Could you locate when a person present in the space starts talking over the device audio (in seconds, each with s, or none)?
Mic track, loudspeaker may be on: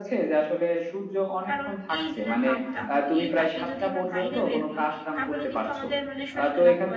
1.5 s